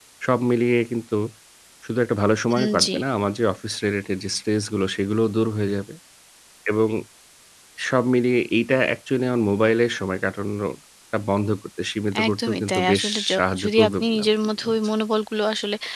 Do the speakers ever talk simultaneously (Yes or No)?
Yes